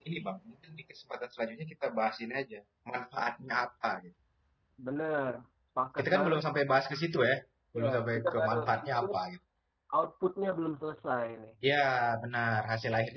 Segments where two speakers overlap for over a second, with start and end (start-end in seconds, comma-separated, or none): 7.8-9.2